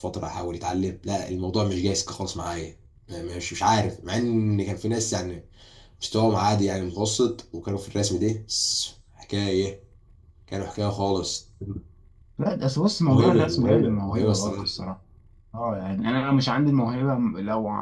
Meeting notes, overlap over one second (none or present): present